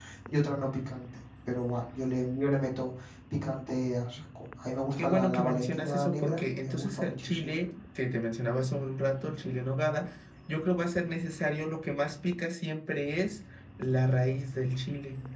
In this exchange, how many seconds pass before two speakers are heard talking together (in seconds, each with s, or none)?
5.0 s